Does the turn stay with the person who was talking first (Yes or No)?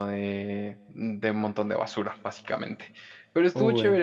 Yes